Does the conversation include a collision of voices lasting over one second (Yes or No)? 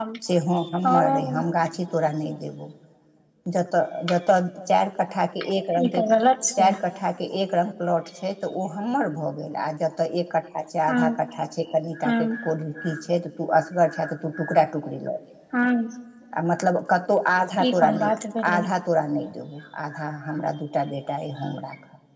No